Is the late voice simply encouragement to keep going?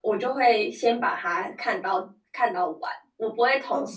Yes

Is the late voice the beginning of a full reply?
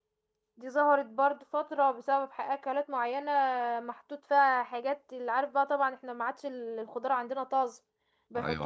No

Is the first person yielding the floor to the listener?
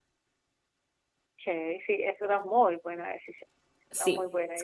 Yes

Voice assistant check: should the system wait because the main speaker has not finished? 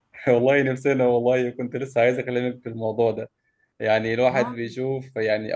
Yes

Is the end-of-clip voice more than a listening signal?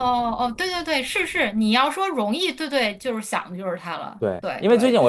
Yes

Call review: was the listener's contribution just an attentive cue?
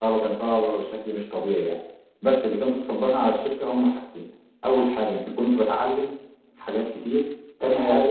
Yes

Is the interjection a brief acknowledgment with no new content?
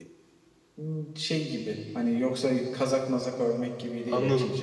No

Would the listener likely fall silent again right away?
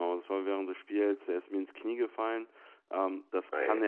Yes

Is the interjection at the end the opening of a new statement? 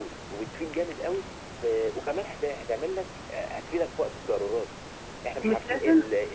Yes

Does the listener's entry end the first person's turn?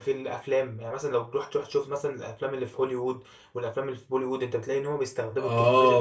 Yes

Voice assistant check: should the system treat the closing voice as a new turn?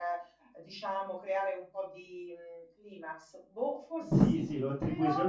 Yes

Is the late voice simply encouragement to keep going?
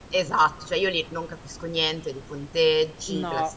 Yes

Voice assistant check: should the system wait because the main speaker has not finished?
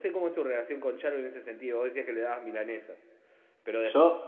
Yes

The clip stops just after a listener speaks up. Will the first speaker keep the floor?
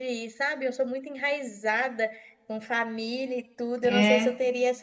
Yes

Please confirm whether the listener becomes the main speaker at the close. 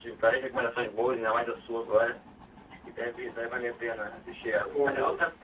No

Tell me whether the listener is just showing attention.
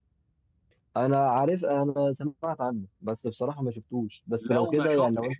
No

